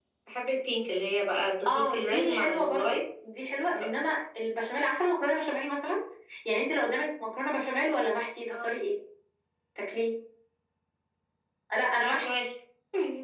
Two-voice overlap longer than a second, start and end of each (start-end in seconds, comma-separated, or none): 1.7-3.0